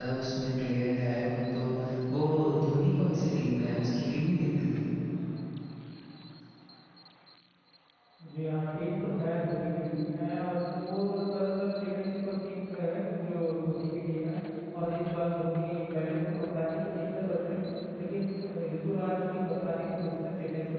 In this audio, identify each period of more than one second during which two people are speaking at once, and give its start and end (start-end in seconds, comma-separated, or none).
none